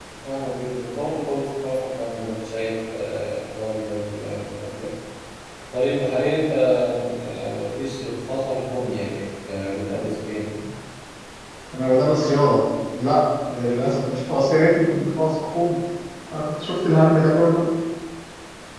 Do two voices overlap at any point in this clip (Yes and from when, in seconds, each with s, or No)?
No